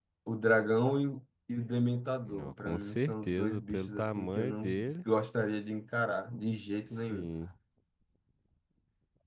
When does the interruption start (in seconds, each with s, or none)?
2.3 s